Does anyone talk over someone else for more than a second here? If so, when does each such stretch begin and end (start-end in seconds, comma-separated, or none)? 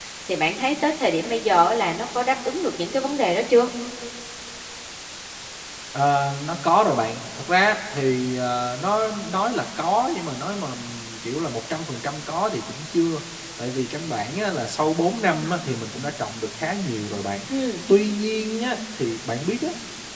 none